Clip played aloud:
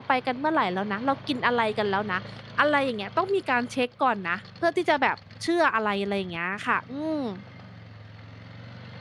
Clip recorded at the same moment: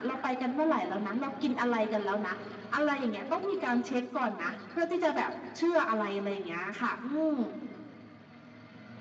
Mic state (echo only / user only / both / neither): echo only